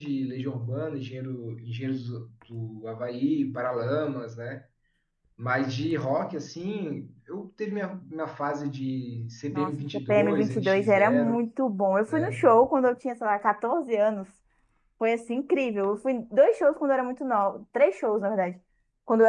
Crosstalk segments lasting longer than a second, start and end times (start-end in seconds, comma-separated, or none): 9.5-11.4